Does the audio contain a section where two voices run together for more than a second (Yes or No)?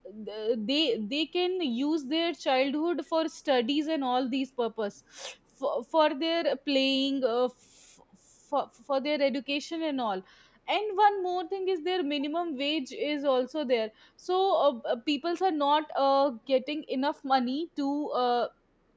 No